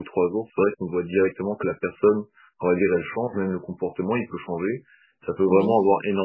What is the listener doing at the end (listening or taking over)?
listening